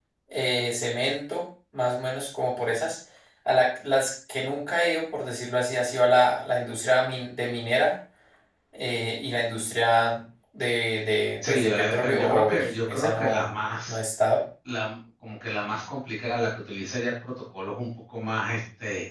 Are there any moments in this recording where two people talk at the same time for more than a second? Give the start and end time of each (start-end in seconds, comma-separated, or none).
11.5-14.0